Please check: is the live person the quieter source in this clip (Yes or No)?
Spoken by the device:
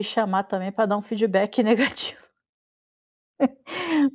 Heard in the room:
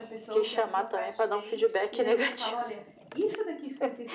Yes